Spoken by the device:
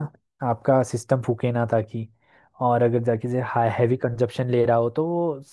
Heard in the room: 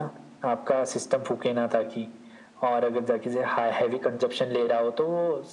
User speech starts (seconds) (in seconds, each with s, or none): none